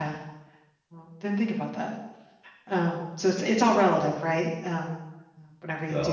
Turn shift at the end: Yes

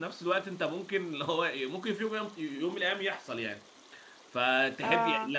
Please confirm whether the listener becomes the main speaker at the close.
No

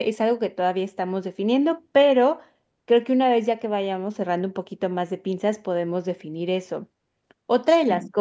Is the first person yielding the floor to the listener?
No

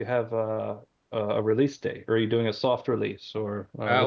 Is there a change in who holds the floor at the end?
Yes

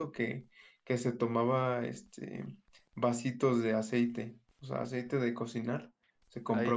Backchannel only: Yes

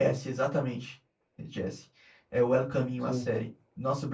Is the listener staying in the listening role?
Yes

